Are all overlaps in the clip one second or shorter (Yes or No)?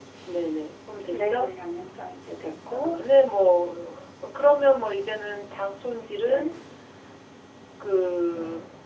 Yes